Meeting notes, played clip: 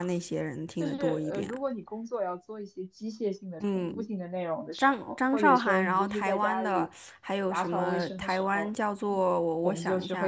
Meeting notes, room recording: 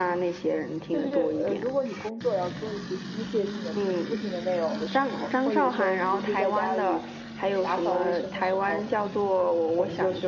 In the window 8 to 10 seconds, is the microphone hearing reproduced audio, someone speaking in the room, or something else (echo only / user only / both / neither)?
echo only